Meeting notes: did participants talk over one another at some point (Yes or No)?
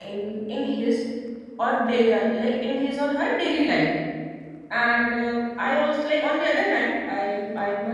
No